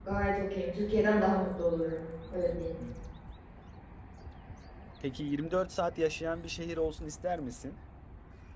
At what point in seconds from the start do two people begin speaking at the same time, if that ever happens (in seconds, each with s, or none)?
none